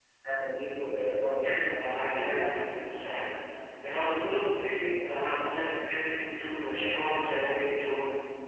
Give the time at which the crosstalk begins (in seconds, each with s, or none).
1.4 s